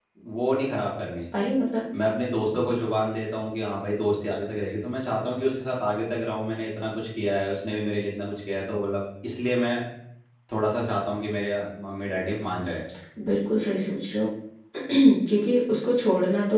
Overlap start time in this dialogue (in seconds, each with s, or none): none